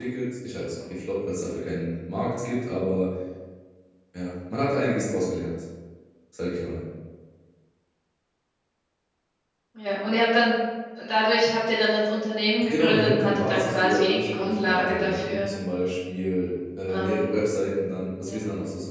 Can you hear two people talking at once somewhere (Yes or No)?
Yes